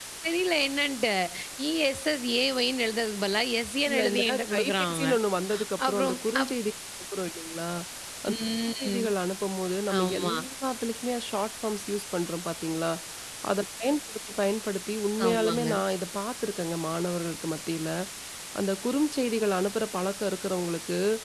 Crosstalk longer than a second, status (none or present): present